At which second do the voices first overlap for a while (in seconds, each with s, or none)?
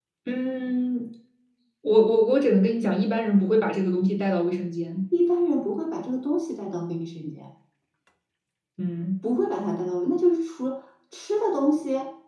none